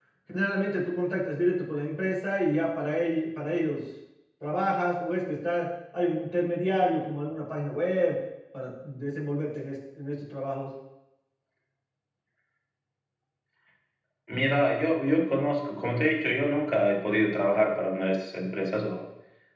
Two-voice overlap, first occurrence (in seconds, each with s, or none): none